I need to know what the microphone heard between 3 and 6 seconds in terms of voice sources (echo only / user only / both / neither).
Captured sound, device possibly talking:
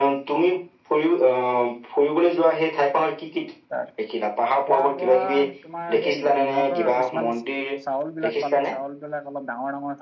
both